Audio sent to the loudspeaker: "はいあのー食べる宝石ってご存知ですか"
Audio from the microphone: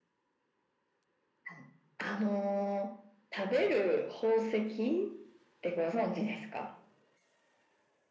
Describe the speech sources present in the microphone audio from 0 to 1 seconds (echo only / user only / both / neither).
neither